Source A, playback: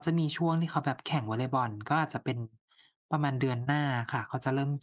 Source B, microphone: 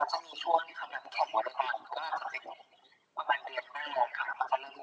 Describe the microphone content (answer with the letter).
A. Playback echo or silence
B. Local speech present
A